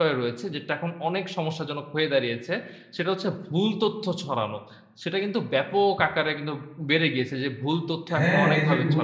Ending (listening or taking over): taking over